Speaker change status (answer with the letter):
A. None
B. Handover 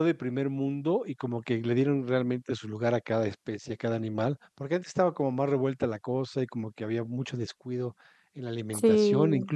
A